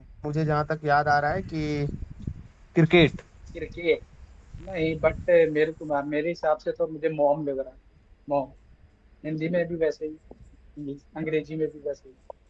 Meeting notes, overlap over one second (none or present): none